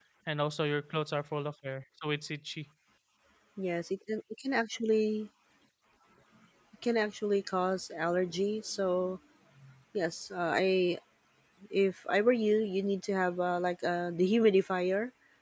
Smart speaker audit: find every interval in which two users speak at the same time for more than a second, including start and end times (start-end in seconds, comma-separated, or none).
none